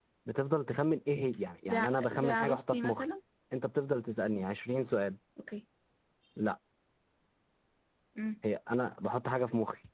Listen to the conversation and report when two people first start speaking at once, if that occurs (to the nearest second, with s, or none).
2 s